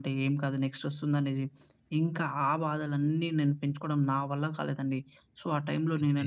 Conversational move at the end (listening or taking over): listening